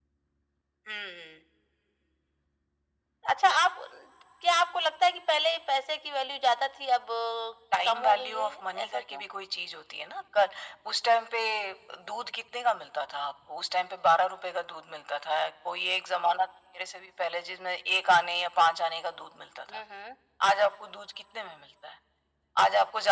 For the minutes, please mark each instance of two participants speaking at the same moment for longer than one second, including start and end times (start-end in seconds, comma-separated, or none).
7.8-9.2